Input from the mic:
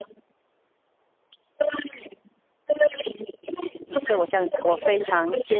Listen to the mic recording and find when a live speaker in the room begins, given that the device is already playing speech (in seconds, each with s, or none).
3.9 s